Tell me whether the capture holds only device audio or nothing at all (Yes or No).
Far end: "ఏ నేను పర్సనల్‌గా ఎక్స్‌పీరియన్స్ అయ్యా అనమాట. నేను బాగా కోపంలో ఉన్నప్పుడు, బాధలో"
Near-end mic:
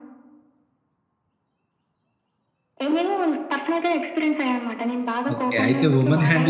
No